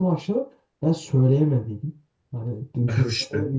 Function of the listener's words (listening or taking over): listening